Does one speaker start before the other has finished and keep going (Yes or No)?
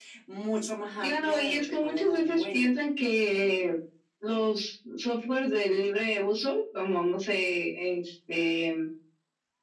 Yes